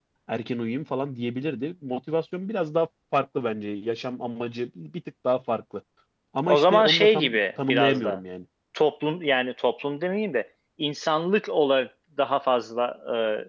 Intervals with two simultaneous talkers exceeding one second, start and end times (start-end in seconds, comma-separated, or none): 6.5-8.2